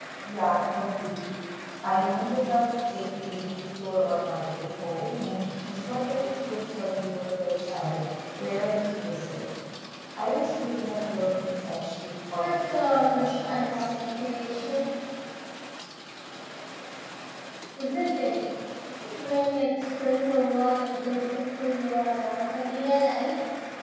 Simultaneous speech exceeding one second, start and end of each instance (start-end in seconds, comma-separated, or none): 12.3-13.9